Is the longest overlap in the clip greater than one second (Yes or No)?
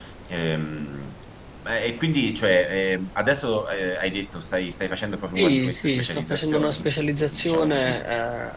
Yes